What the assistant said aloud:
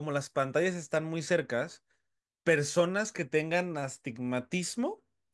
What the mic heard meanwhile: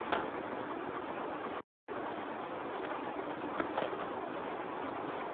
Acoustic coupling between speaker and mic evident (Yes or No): No